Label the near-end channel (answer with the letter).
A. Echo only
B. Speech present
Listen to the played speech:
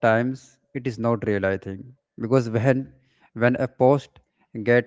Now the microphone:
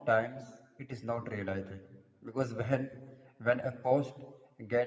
A